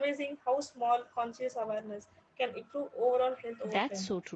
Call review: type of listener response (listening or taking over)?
taking over